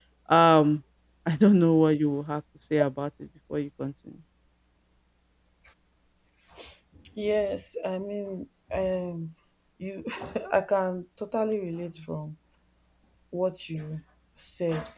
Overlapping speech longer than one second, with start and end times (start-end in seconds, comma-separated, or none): none